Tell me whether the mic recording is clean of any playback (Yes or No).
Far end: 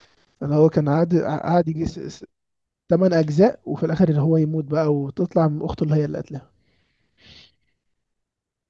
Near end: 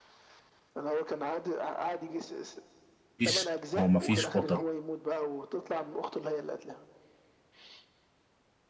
No